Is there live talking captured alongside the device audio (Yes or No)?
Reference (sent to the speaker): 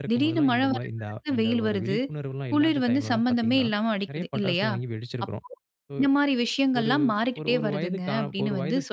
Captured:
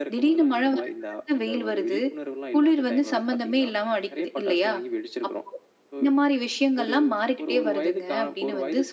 No